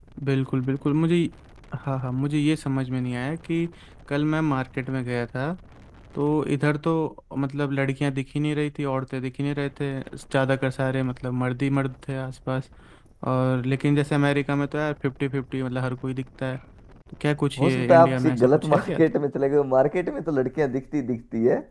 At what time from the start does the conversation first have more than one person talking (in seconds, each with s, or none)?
17.6 s